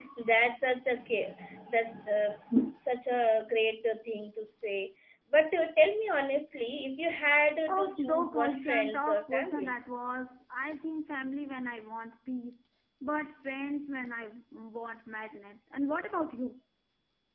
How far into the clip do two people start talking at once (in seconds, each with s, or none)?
7.7 s